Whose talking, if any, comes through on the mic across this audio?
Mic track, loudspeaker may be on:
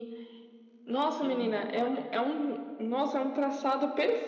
both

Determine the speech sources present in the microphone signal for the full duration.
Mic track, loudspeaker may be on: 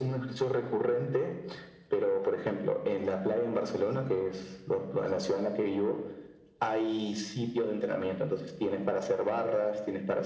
echo only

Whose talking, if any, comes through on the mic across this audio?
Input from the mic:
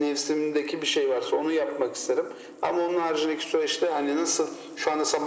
echo only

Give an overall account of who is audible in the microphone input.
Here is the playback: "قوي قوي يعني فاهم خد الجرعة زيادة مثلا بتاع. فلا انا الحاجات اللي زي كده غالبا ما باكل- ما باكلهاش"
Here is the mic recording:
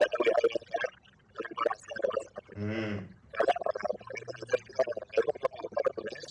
both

